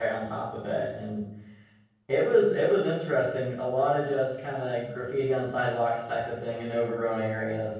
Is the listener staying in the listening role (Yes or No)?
Yes